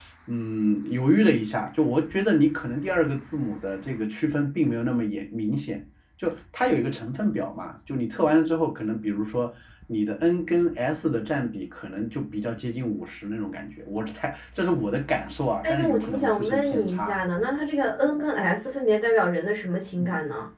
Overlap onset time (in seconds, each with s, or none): 15.6 s